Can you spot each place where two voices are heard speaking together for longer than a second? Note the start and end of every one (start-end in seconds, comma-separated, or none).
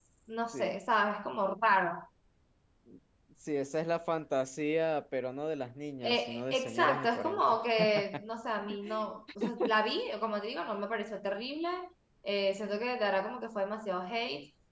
6.0-7.4